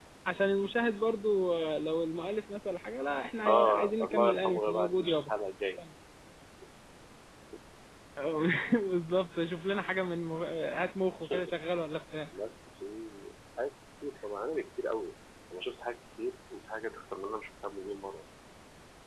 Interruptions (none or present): present